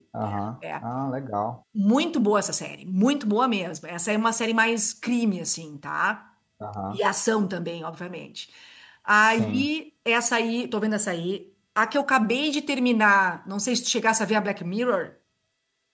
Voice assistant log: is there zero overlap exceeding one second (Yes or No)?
Yes